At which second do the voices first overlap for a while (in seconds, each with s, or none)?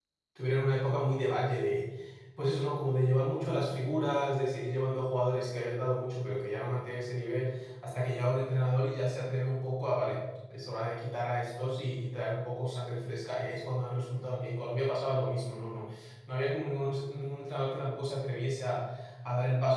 none